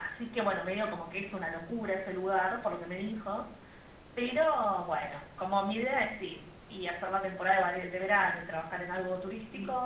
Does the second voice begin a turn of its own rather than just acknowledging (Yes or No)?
No